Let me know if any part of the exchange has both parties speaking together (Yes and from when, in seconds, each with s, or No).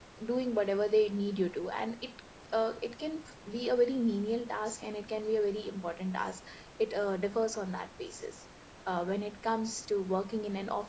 No